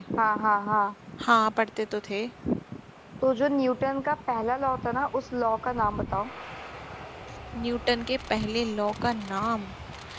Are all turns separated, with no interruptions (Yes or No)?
Yes